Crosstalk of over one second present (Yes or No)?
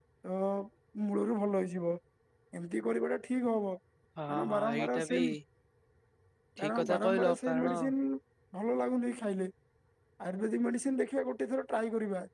Yes